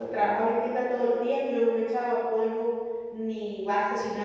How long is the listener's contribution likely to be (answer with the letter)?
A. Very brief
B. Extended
A